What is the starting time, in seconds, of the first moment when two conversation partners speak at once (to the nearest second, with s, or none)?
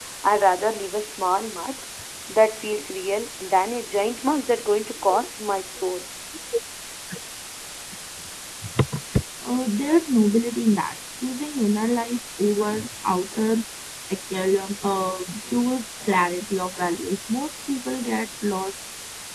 none